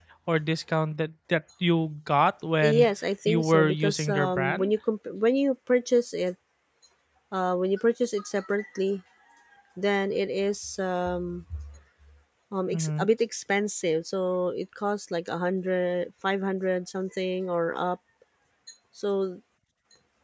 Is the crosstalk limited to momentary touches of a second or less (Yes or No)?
No